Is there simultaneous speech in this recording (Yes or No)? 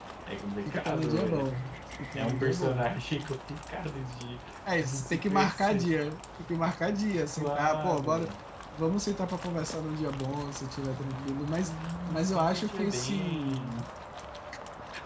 Yes